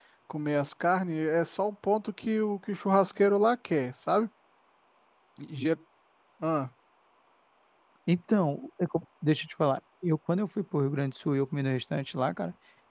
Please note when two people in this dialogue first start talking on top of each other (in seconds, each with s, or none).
none